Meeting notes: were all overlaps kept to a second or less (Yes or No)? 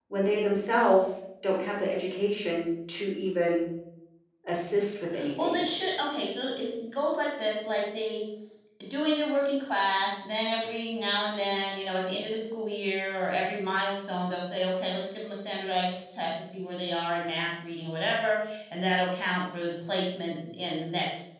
Yes